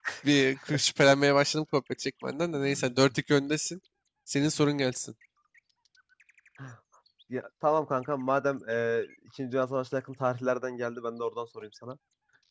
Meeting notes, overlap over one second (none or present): none